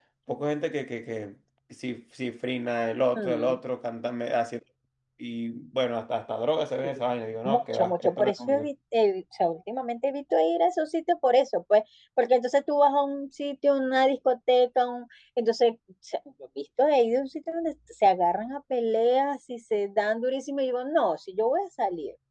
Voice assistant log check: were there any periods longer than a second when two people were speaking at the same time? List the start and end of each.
7.5-8.7

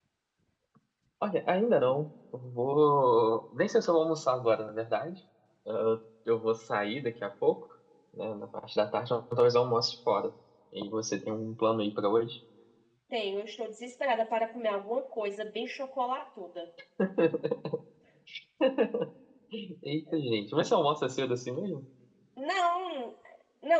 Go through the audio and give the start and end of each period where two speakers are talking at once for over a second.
none

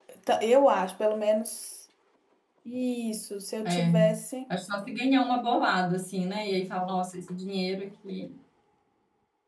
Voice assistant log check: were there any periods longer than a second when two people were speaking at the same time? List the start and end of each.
none

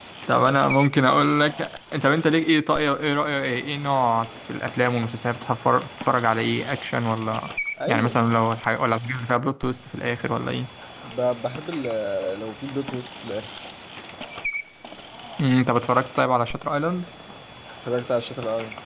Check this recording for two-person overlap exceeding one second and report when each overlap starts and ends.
none

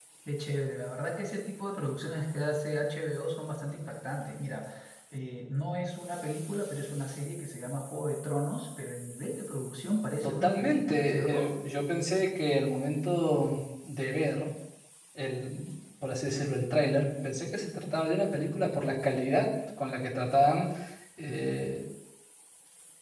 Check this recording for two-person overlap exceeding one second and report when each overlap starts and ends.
10.2-11.5

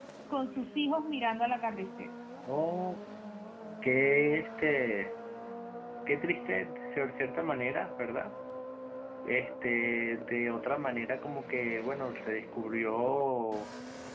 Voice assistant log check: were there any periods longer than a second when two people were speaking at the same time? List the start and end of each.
none

